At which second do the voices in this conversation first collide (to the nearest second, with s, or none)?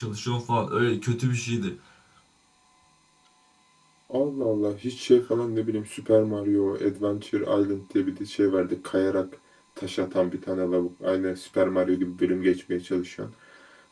none